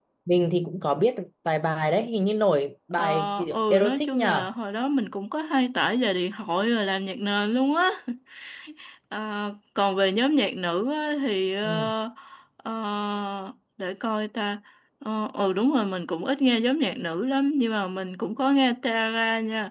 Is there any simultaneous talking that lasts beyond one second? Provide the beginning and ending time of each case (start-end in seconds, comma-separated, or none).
3.0-4.5